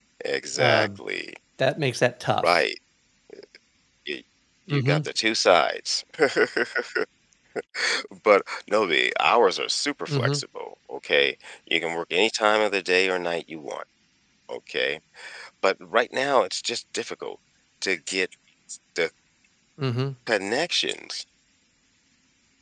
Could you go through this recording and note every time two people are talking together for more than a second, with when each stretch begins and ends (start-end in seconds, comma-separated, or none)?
none